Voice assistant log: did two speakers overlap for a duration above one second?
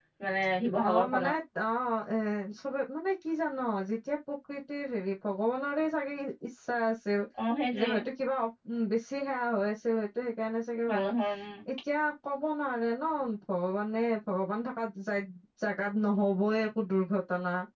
No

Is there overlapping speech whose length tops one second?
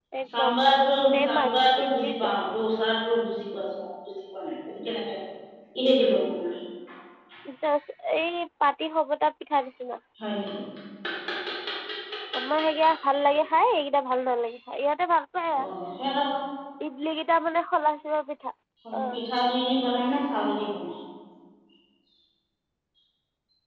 Yes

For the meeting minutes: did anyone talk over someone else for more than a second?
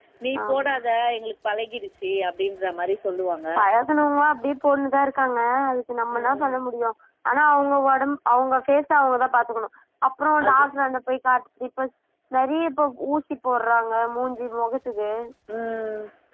No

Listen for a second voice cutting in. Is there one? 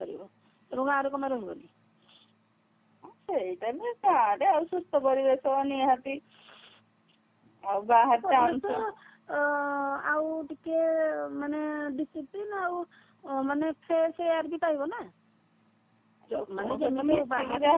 Yes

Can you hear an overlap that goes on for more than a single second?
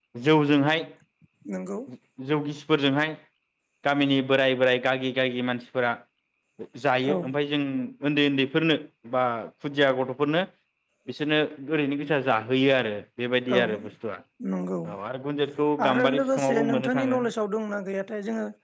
Yes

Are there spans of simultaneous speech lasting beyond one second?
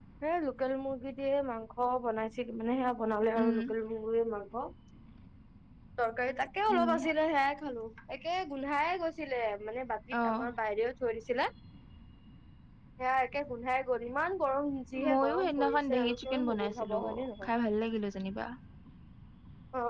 Yes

